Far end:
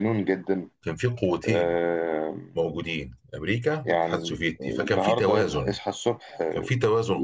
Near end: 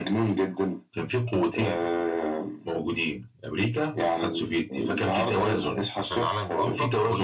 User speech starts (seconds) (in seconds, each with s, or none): 6.0 s